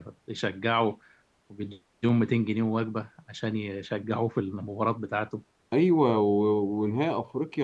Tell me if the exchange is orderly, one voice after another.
Yes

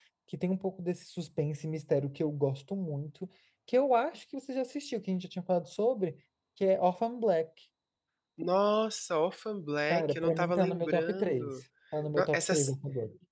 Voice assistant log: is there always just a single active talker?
No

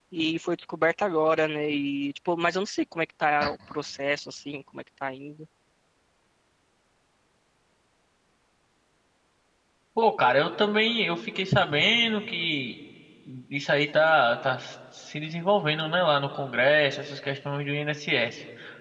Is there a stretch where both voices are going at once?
No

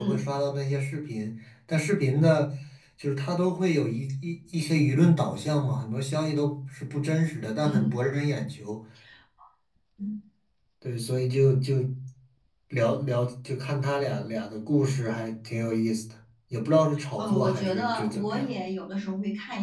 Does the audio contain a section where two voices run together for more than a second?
Yes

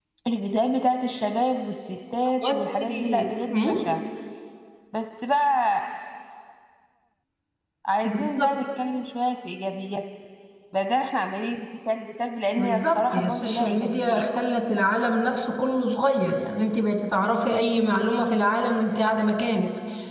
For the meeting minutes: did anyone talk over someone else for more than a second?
Yes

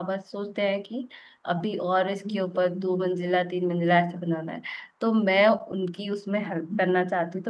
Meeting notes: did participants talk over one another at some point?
No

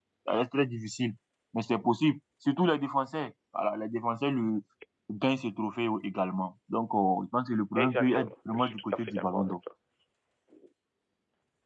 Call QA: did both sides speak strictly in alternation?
No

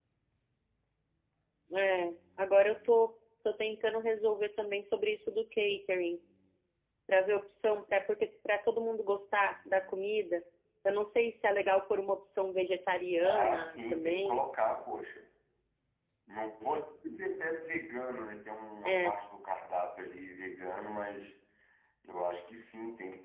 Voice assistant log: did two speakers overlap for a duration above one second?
Yes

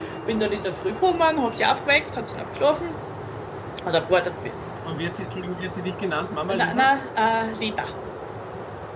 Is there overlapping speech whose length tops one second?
No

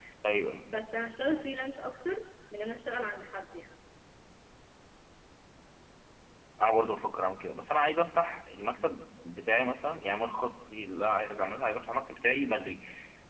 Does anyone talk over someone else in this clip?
No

